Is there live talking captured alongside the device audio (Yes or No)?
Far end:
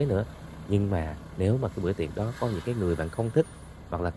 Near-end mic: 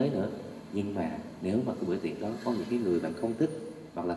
No